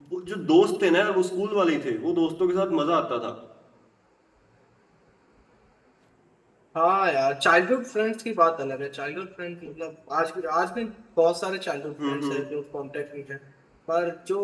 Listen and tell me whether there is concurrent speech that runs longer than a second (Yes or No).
No